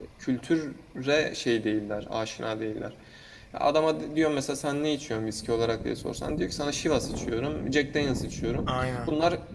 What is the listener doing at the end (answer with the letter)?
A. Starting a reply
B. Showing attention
B